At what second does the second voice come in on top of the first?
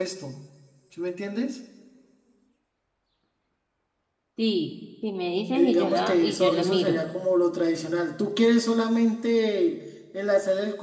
6 s

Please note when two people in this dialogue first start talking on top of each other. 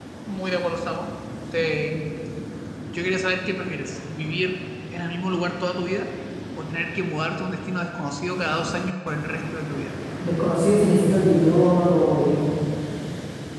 none

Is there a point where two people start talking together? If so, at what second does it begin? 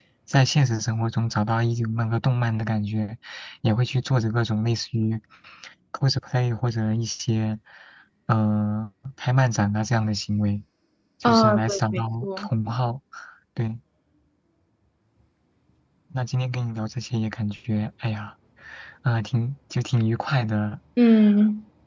11 s

